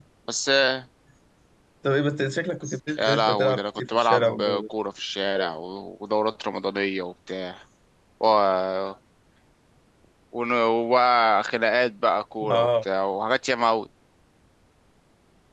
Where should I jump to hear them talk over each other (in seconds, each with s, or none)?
3.0 s